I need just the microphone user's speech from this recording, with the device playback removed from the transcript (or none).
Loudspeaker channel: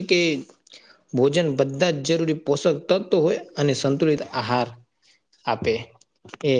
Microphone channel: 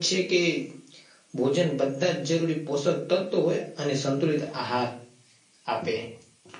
none